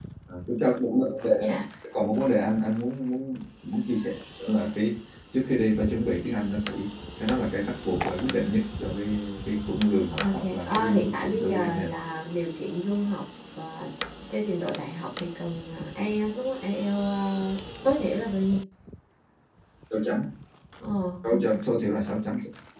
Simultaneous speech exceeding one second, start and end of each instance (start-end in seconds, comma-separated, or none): 10.2-11.9